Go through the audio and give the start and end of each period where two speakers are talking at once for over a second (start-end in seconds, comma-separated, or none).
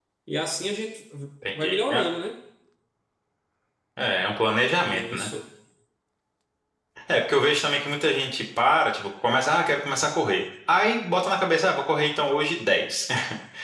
none